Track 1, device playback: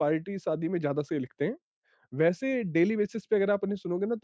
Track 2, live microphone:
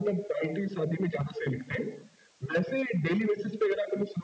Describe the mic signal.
echo only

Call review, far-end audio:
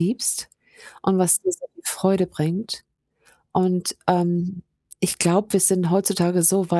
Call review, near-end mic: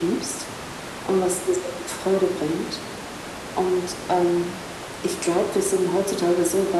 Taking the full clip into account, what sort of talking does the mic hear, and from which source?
echo only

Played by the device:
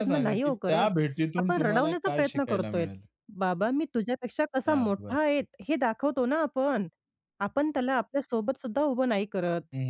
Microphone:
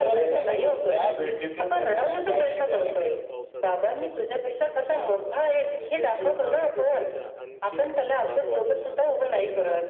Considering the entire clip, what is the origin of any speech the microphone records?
both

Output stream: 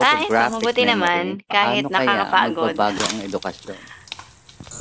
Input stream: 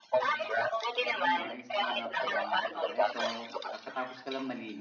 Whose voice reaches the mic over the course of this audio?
both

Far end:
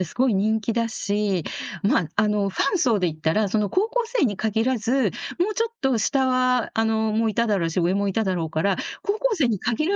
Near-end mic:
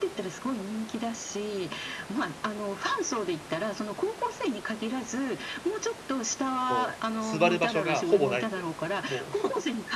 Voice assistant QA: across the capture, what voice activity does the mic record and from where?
both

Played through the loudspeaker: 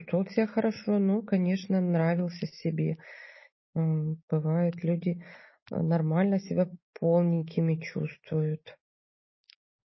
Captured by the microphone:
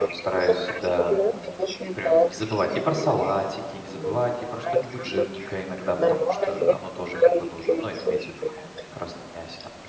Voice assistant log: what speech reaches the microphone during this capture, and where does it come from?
both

